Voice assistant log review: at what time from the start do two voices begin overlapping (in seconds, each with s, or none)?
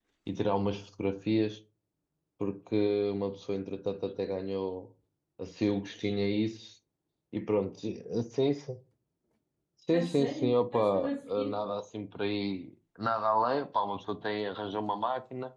9.9 s